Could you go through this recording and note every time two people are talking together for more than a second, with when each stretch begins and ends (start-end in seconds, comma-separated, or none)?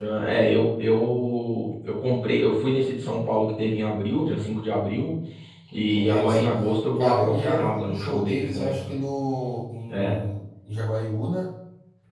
7.0-8.9